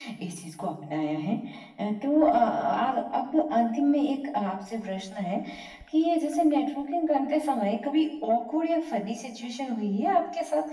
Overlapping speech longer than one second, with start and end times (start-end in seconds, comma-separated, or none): none